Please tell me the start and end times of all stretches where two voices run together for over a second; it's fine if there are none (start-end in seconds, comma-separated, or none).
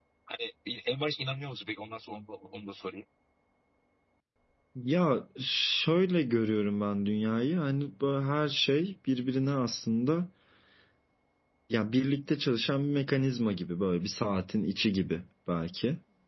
none